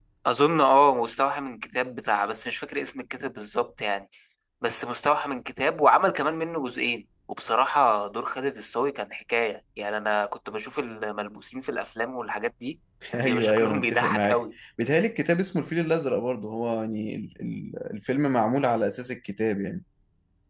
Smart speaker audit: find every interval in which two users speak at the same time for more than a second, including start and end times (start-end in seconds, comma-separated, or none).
13.2-14.4